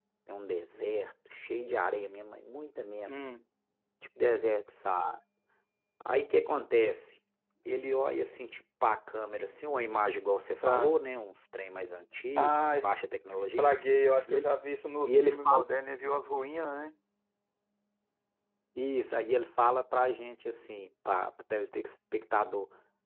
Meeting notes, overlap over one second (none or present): none